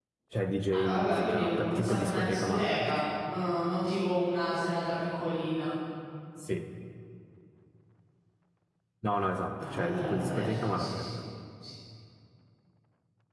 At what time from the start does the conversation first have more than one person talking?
0.7 s

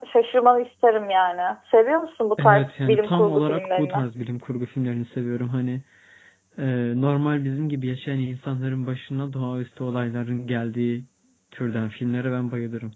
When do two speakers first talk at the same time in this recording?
2.4 s

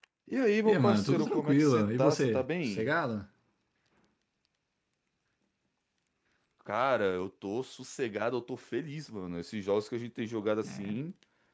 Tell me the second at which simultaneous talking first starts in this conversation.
0.6 s

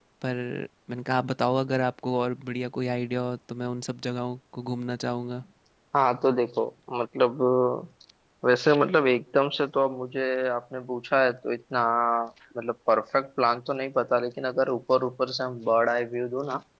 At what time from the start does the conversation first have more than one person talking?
none

